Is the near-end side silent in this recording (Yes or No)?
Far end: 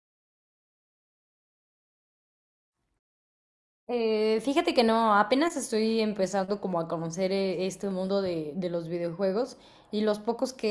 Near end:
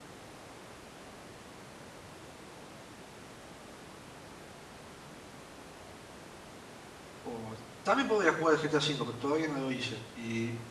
No